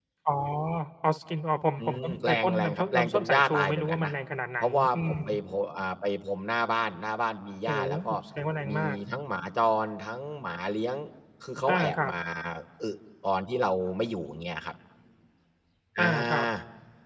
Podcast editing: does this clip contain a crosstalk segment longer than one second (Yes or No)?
Yes